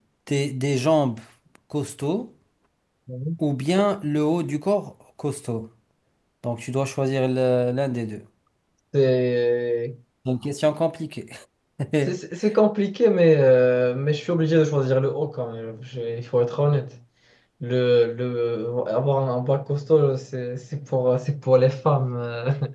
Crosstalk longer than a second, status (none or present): none